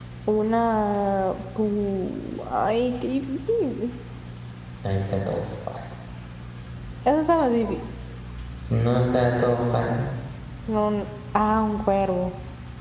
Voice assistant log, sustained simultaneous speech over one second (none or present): none